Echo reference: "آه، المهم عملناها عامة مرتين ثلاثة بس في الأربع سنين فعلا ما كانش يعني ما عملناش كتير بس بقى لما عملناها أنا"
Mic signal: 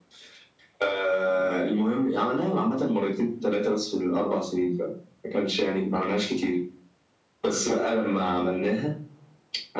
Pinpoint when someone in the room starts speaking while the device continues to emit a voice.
none

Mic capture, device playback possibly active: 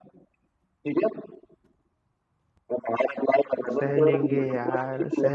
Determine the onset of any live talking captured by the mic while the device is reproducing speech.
3.7 s

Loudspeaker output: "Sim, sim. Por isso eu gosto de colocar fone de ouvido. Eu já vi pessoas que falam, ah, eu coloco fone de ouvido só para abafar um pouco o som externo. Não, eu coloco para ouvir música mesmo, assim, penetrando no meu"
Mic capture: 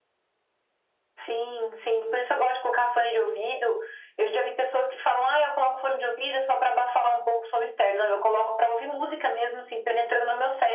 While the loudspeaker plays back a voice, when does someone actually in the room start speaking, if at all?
none

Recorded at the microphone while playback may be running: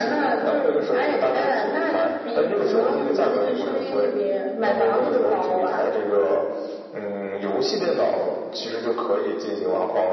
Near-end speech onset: none

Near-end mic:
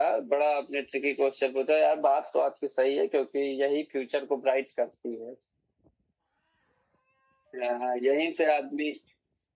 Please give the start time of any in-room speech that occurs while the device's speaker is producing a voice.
none

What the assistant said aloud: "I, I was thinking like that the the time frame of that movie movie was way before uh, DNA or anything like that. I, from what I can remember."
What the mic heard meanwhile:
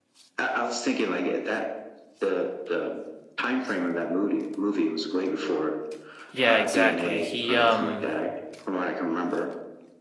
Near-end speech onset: 6.3 s

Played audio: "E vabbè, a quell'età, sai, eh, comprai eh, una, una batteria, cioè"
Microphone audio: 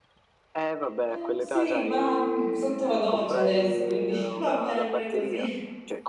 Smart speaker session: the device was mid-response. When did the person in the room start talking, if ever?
1.1 s

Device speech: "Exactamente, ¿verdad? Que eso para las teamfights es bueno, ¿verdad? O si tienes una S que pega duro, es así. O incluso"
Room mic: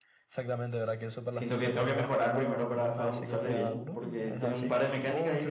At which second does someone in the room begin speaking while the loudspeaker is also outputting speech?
1.3 s

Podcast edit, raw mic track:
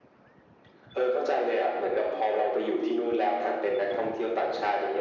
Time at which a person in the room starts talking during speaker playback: none

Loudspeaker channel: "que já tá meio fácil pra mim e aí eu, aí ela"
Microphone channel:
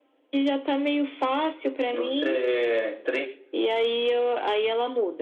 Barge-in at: 1.9 s

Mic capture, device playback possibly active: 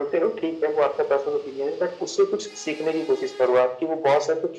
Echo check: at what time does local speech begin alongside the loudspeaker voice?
none

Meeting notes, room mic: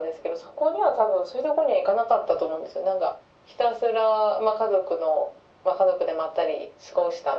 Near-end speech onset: none

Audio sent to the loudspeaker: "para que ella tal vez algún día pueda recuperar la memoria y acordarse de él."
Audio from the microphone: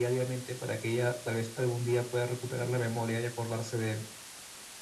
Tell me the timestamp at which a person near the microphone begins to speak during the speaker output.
none

